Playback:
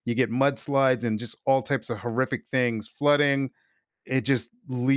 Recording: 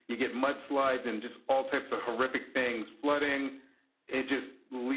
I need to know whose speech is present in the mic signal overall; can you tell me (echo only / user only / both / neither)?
echo only